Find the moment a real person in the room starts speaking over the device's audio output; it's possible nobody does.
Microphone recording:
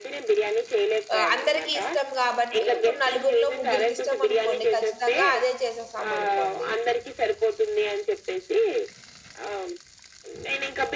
1.1 s

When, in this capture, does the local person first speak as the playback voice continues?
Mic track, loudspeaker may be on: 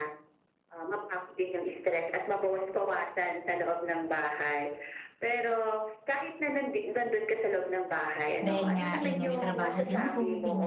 8.4 s

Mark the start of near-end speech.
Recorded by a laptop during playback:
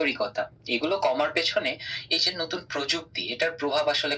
none

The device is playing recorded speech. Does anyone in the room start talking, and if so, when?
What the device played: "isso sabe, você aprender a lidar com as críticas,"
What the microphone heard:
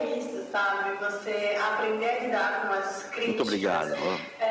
3.2 s

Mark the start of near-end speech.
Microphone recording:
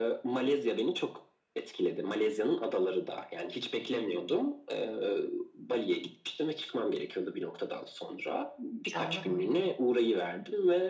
8.9 s

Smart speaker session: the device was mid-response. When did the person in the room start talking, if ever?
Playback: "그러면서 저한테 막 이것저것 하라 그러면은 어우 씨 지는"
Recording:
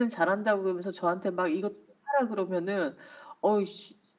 none

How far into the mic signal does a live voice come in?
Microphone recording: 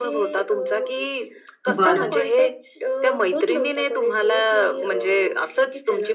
1.7 s

